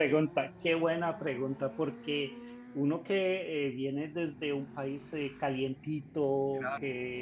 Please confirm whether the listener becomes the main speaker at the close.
No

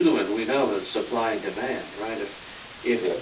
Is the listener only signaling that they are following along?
Yes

